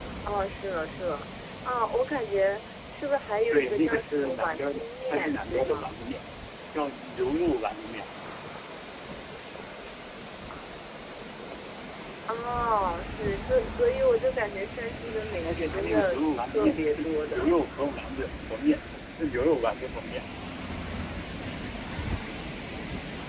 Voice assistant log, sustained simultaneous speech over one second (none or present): present